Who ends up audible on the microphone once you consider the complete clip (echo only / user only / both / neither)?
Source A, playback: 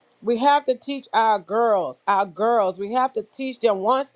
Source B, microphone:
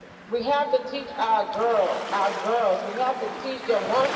echo only